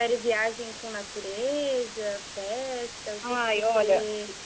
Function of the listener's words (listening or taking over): taking over